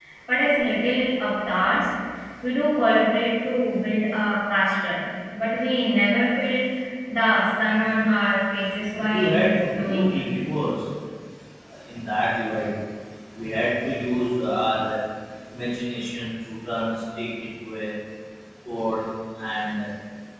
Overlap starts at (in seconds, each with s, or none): 8.9 s